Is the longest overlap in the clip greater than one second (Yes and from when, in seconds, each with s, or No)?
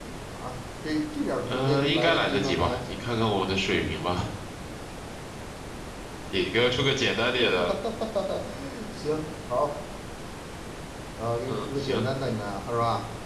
Yes, from 1.4 s